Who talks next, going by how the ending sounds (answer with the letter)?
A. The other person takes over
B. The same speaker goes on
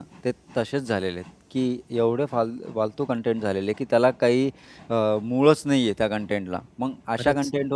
B